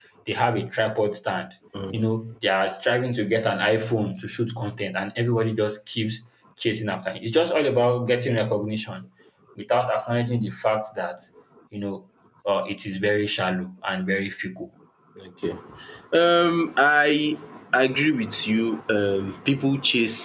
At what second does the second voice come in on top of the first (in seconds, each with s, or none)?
none